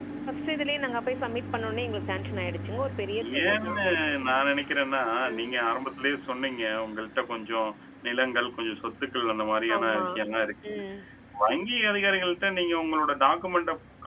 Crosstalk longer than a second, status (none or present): none